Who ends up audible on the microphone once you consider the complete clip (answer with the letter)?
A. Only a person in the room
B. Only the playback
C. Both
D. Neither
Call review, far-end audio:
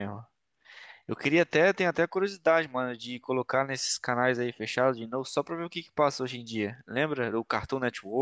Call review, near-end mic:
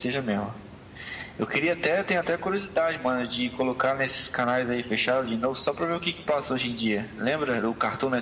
B